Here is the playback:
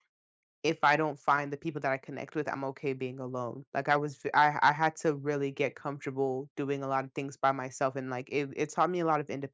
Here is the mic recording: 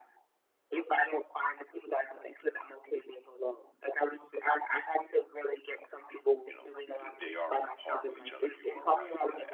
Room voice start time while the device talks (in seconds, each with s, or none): 6.5 s